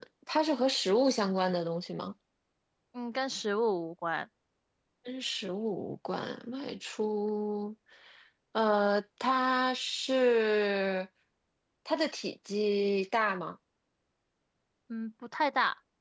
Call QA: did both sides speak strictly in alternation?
Yes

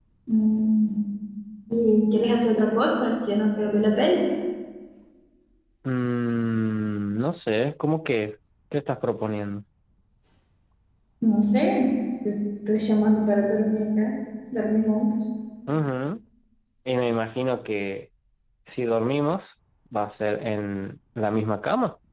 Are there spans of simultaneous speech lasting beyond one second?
No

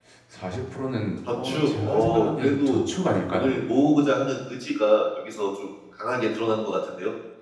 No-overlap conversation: No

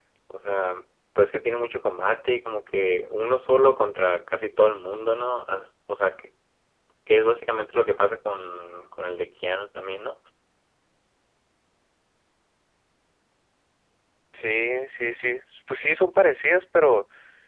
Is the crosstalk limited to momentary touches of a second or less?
Yes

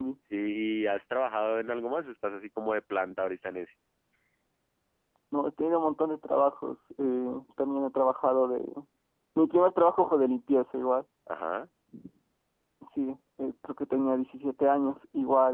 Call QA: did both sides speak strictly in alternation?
Yes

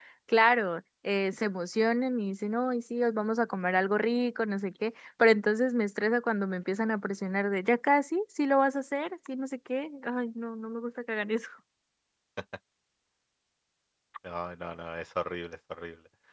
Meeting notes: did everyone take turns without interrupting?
Yes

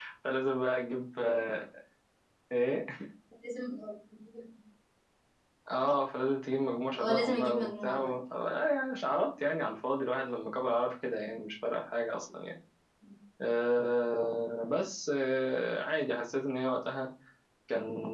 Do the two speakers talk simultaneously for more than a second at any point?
Yes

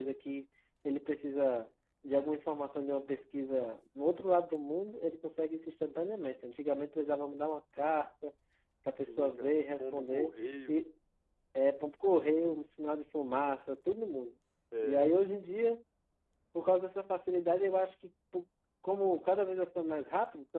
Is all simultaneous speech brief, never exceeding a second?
No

